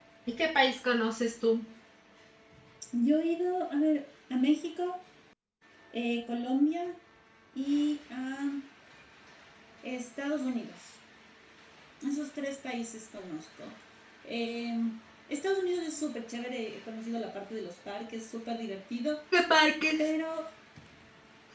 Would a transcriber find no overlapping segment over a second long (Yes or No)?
Yes